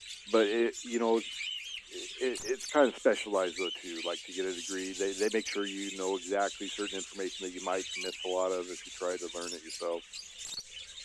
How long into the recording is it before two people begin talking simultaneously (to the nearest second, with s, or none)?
none